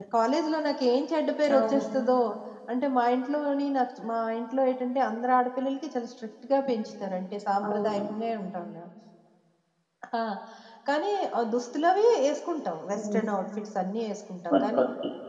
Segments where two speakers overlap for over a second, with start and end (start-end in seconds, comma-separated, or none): none